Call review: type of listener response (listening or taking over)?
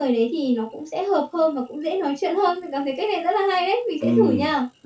taking over